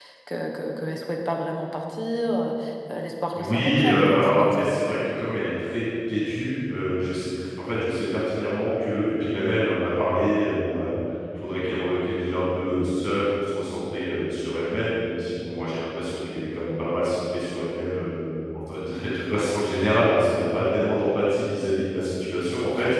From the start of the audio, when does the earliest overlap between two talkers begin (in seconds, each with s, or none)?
3.4 s